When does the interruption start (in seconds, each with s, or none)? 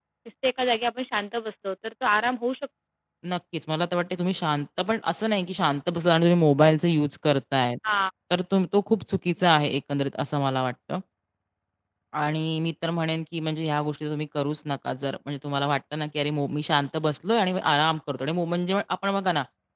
none